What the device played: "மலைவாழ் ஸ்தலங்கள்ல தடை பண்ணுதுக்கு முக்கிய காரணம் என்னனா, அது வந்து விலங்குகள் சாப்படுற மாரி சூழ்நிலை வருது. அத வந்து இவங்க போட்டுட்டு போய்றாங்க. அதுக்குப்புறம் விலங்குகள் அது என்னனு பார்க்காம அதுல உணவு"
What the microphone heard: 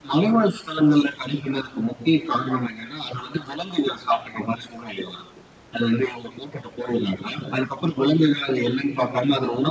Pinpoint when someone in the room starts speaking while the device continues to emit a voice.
none

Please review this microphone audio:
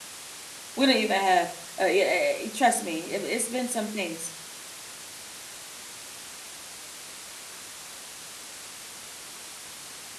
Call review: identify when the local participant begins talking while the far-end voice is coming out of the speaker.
0.8 s

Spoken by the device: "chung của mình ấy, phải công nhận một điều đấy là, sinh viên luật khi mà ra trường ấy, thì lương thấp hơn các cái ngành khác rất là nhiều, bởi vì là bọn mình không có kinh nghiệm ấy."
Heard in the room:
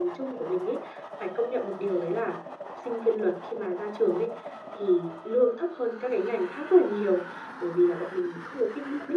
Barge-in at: none

